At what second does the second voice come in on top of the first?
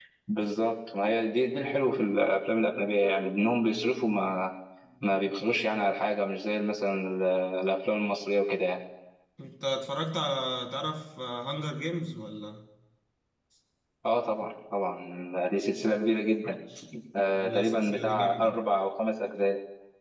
17.4 s

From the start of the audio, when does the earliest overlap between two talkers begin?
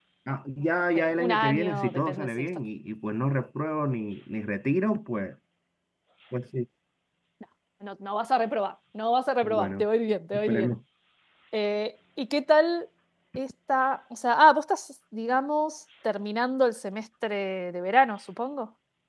1.0 s

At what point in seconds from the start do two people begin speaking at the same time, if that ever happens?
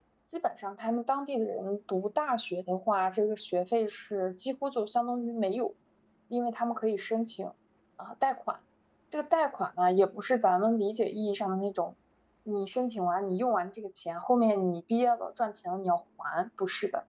none

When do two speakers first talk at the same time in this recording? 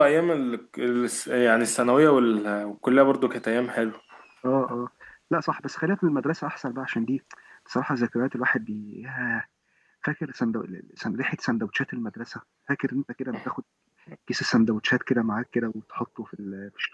none

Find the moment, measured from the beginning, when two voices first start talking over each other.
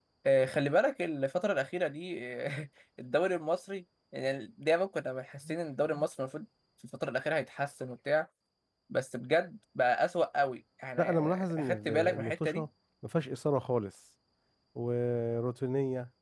11.0 s

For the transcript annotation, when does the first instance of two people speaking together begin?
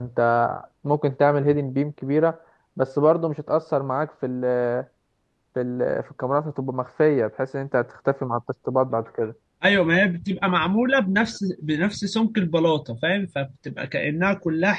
none

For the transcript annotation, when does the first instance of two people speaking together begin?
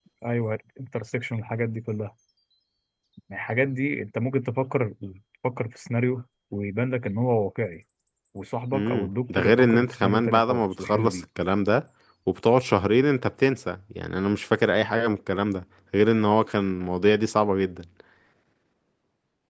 8.7 s

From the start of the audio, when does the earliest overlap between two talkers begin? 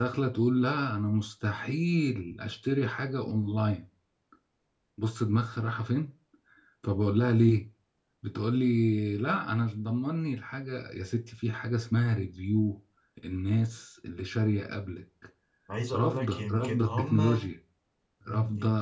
15.9 s

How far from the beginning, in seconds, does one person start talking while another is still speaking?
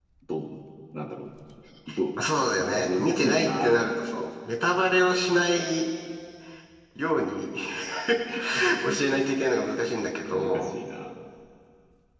2.1 s

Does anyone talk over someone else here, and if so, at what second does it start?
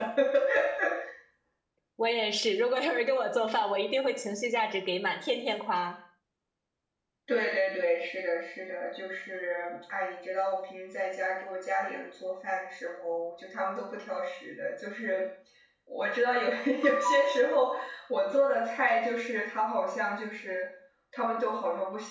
none

